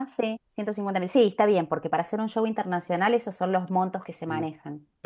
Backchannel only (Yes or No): No